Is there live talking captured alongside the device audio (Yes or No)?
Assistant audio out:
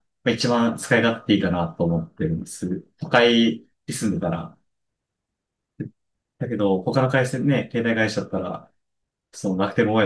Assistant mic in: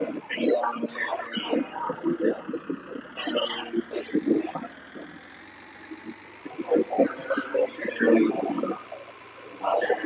No